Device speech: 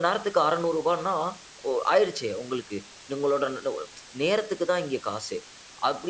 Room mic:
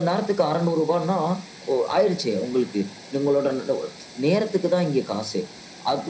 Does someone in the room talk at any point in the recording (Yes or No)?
No